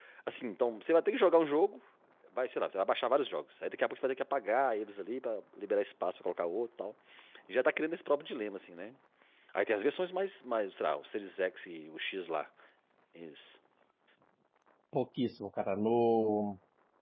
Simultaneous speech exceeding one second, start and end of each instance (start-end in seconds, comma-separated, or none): none